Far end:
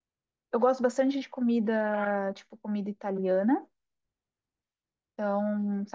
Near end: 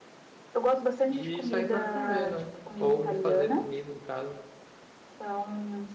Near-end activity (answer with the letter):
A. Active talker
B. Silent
A